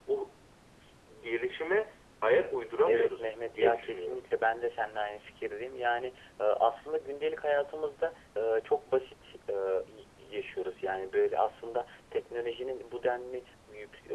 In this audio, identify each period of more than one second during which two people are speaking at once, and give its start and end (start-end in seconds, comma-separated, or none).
2.9-4.2